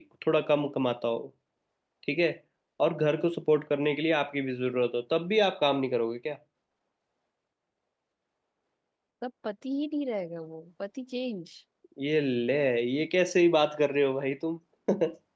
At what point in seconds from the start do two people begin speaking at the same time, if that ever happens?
none

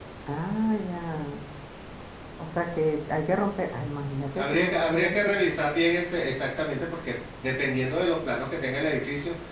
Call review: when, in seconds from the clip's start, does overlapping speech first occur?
4 s

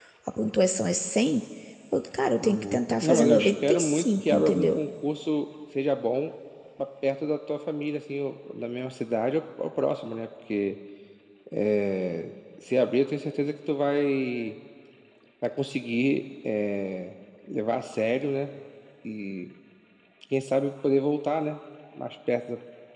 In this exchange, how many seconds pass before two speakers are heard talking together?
2 s

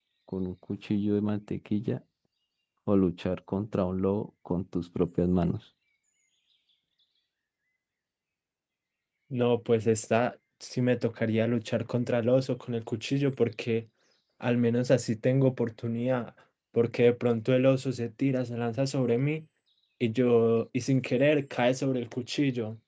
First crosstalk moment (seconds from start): none

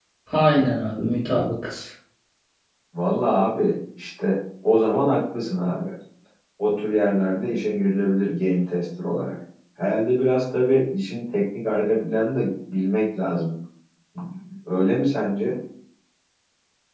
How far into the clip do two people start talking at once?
none

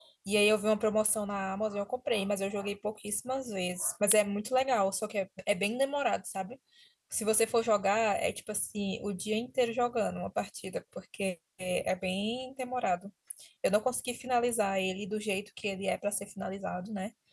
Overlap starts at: none

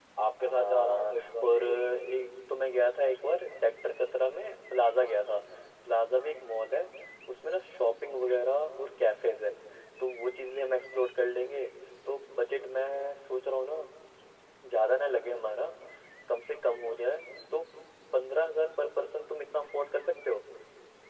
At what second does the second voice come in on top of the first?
1 s

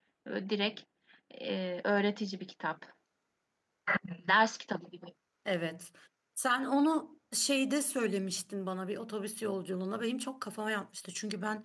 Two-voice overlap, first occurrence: none

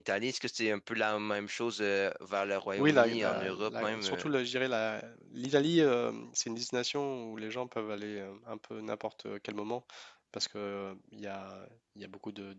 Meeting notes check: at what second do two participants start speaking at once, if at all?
3 s

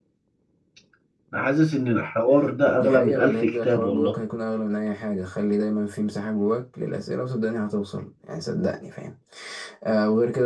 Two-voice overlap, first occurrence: 3 s

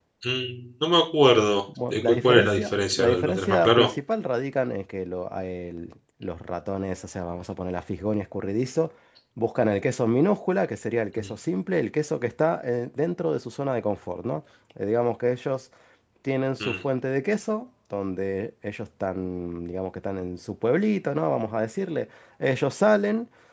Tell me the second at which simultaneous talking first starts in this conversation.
2 s

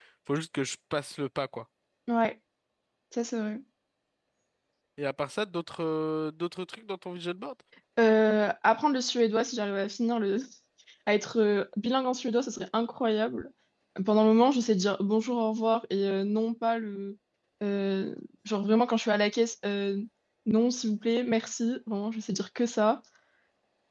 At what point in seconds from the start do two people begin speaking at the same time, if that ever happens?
none

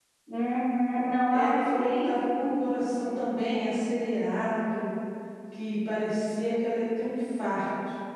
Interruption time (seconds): 1 s

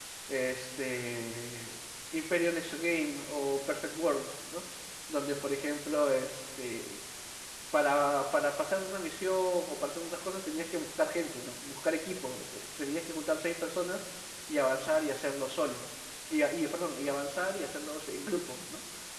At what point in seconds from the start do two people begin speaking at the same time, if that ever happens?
none

